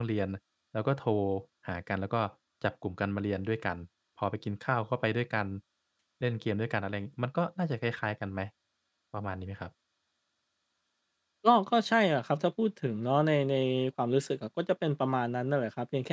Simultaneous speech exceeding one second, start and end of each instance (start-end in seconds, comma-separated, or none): none